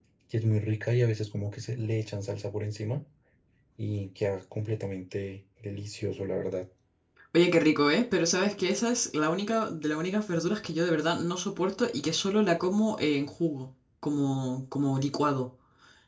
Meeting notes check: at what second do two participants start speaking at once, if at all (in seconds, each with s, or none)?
none